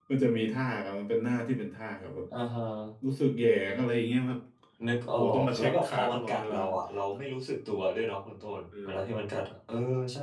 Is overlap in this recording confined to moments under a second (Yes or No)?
No